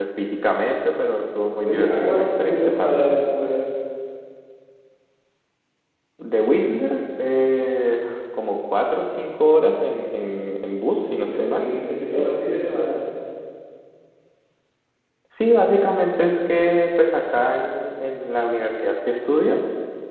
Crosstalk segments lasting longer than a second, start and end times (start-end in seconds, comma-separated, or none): 1.6-3.0